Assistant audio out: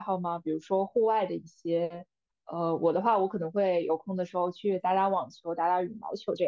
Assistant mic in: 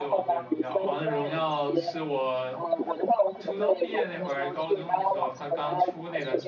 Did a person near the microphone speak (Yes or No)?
Yes